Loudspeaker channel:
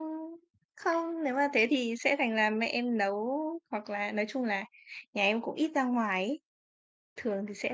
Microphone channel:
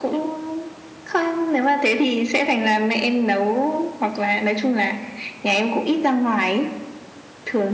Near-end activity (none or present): none